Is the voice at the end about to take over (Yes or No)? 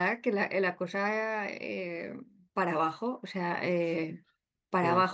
No